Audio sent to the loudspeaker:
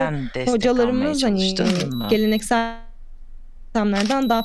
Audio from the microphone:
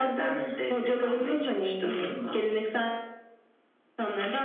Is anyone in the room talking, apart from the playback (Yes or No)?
No